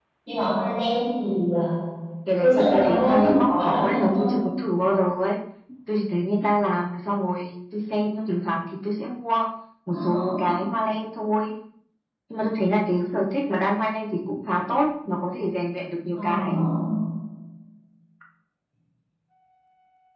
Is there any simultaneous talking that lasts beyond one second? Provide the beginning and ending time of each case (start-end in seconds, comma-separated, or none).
2.4-4.3